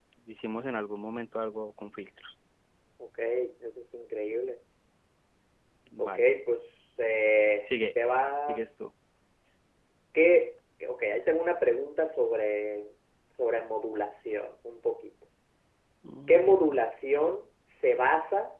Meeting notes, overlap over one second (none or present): none